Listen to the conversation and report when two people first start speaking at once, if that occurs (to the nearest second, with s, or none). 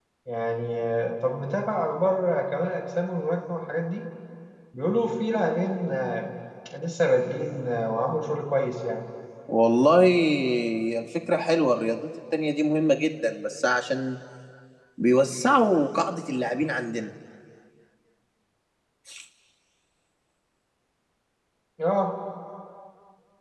none